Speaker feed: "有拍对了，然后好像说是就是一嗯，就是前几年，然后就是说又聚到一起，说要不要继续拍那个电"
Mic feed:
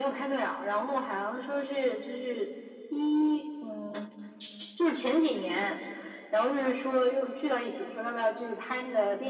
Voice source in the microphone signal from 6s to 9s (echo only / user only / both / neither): echo only